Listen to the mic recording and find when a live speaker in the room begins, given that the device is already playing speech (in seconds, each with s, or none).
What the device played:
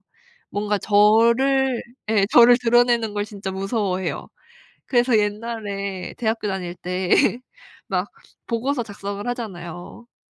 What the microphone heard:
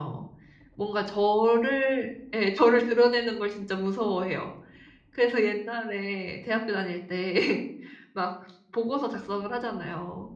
none